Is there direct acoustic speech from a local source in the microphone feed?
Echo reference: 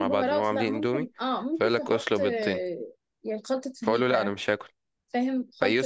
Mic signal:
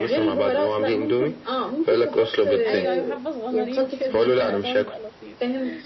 Yes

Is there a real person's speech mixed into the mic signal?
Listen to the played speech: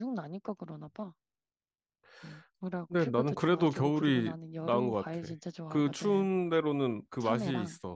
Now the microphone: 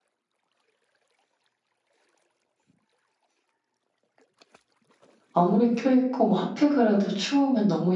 Yes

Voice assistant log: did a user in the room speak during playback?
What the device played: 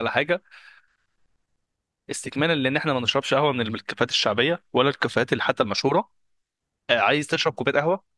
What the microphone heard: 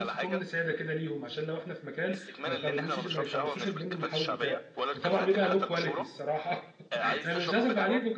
Yes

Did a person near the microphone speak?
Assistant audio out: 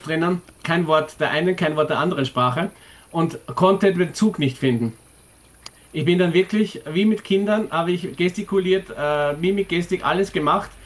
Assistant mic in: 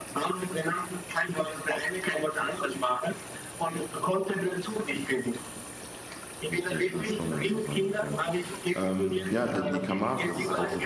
Yes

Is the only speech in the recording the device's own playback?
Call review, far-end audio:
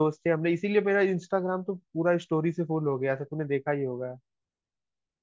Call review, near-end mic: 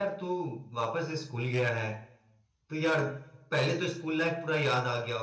No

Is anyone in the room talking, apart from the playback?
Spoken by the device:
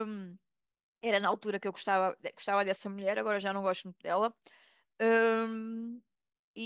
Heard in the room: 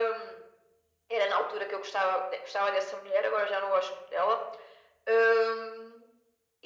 No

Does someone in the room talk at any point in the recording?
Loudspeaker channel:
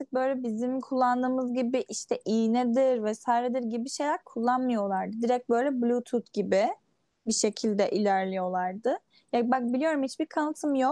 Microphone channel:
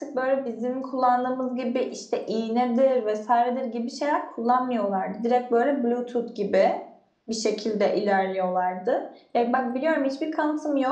No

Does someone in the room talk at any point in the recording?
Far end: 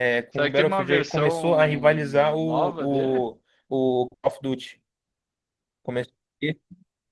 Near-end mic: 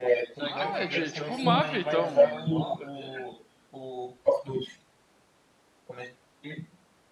Yes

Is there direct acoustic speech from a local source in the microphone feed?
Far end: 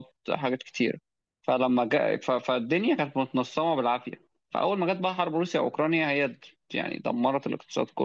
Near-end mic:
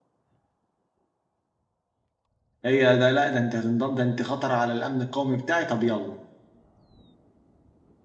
Yes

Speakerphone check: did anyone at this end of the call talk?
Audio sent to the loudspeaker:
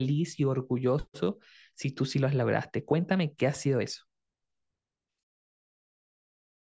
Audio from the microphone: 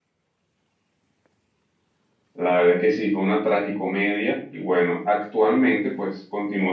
Yes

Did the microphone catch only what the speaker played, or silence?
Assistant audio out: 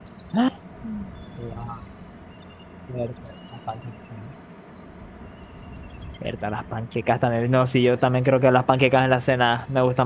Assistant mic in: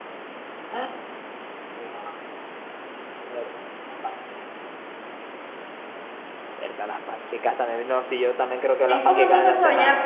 No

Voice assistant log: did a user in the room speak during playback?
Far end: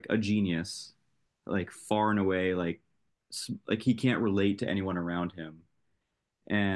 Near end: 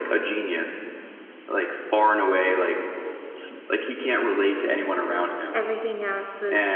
Yes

